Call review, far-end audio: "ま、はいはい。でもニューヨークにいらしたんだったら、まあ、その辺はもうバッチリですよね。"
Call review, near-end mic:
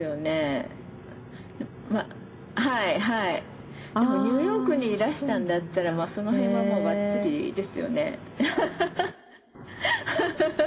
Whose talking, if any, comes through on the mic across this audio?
both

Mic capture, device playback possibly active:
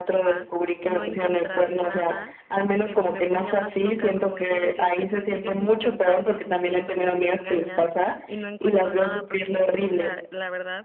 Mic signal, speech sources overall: both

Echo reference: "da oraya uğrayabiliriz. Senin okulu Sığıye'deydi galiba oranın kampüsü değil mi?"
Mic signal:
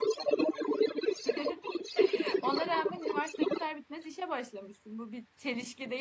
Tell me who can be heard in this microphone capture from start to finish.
both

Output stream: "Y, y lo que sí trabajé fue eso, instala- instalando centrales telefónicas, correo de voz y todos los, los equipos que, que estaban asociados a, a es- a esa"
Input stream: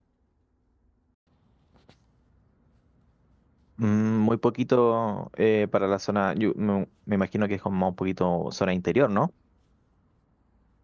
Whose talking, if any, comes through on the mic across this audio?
user only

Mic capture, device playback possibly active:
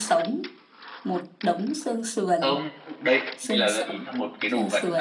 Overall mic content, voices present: both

